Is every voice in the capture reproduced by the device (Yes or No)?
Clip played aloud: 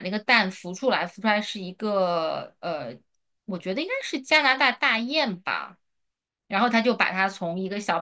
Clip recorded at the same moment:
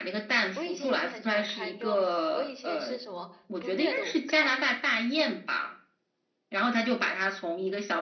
No